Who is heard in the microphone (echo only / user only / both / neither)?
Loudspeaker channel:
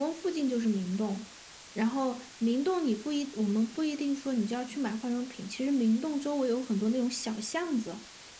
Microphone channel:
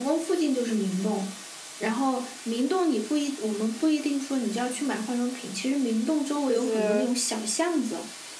both